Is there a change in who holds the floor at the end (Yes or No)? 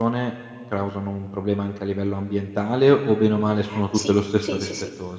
Yes